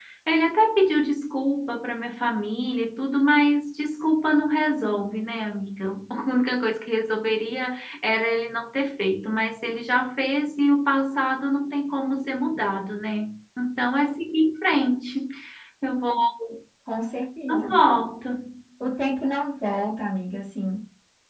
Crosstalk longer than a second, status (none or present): none